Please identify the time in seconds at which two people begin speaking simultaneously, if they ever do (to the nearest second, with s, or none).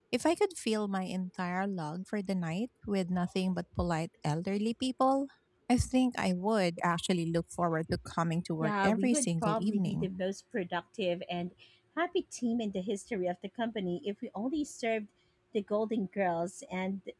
9 s